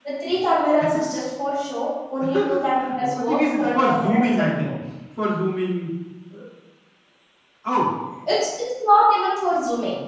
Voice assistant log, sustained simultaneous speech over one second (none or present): present